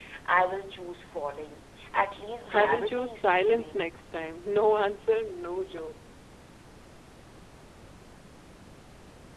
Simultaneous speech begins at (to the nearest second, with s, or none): 2 s